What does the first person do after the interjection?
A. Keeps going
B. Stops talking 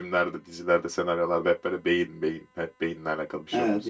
B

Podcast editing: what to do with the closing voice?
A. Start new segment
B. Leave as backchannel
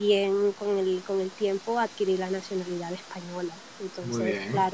B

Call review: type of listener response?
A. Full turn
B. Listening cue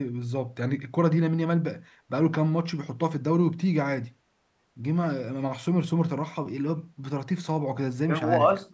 A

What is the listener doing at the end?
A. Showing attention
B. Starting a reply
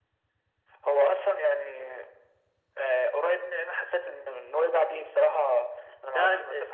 A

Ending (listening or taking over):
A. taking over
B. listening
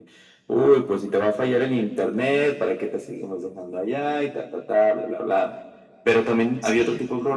B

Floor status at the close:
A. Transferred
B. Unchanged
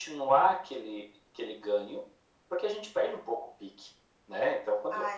B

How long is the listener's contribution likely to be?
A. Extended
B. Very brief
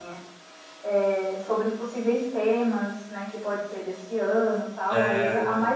B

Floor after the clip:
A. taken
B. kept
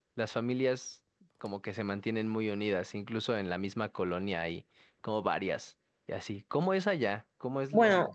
A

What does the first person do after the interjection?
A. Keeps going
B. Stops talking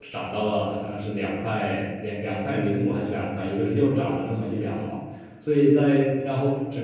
A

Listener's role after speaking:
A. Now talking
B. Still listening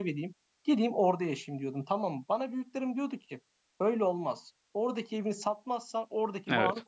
B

